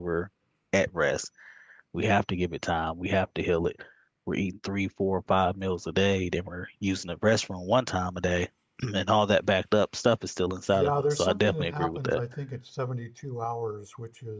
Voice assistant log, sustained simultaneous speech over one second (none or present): present